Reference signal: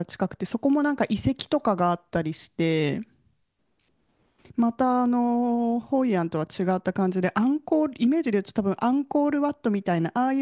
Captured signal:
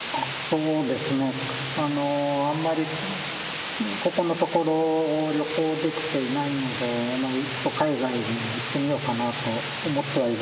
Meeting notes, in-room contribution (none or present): present